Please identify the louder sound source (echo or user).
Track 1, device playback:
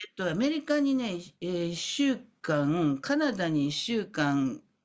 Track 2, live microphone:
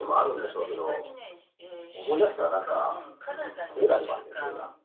user